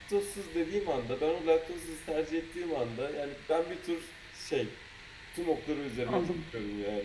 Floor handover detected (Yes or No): Yes